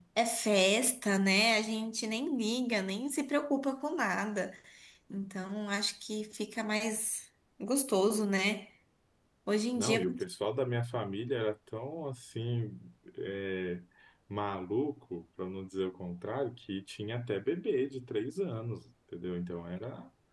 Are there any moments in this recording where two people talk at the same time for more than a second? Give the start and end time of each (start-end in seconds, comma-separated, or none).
none